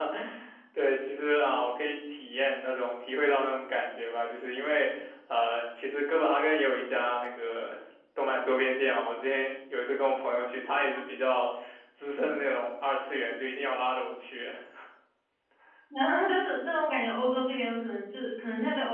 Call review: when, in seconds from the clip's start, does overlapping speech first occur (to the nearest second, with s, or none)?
none